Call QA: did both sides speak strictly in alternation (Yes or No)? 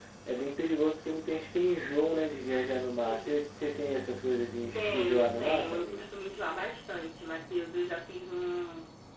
No